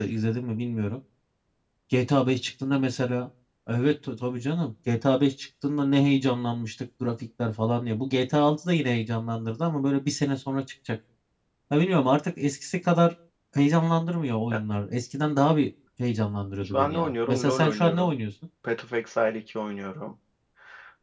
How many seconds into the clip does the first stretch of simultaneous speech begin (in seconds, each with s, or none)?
16.6 s